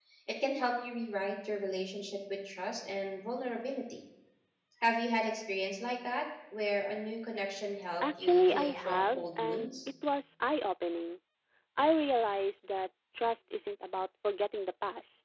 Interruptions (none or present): present